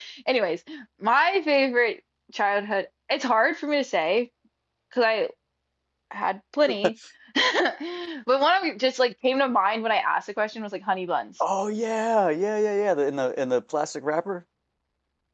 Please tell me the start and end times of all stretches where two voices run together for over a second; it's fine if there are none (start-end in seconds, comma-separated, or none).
none